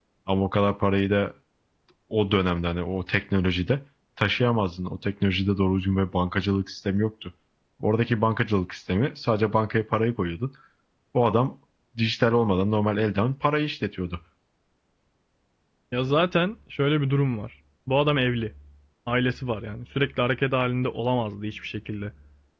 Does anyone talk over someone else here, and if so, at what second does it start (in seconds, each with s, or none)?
none